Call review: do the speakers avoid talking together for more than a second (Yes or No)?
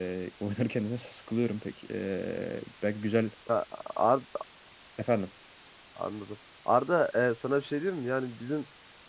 Yes